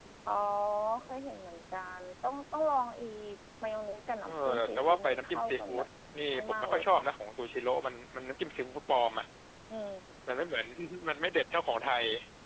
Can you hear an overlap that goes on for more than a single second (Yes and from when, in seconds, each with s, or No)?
Yes, from 4.2 s